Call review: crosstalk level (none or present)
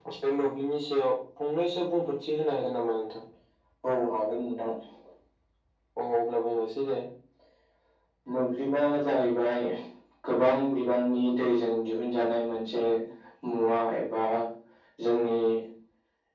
none